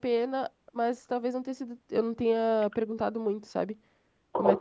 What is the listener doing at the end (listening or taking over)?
taking over